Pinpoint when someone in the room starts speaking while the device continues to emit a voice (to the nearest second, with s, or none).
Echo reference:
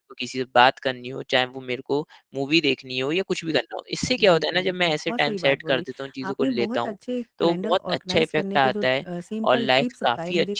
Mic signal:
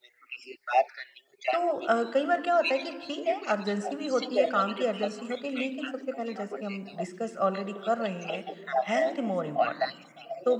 2 s